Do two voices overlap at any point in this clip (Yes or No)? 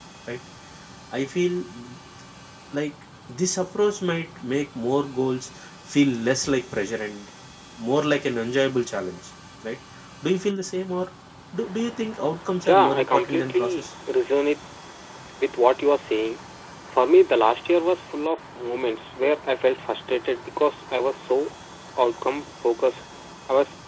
Yes